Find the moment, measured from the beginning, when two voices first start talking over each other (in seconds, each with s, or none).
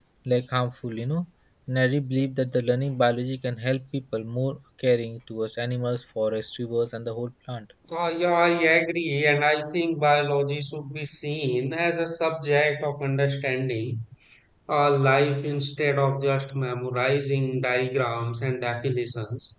none